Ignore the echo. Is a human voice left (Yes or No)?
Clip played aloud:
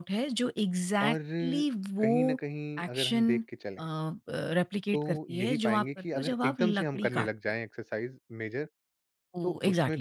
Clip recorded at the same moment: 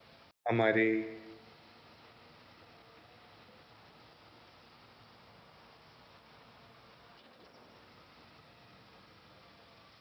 Yes